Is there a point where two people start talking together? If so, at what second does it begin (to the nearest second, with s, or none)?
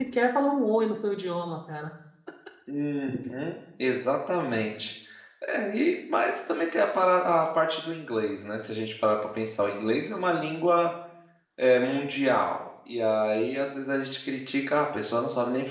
none